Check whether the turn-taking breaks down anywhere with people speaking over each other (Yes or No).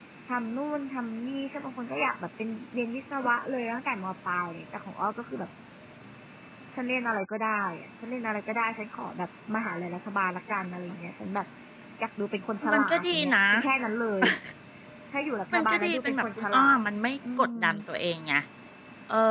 Yes